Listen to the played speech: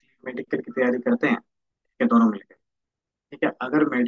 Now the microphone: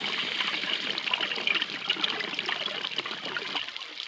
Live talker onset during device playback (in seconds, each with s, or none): none